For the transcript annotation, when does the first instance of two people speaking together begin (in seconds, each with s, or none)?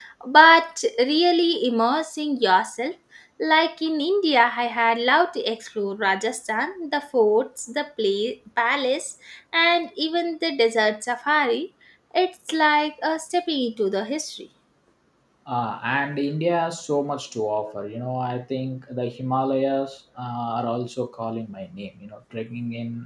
none